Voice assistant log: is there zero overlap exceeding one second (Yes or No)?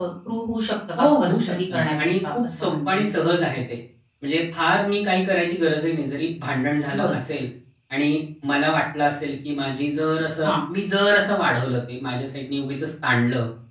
No